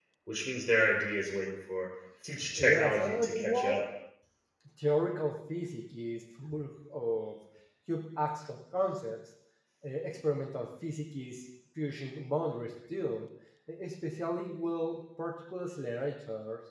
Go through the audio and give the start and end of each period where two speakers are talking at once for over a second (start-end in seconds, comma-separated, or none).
2.6-3.8